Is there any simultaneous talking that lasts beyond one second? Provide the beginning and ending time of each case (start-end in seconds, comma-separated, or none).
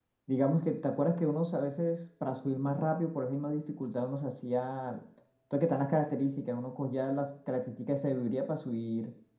none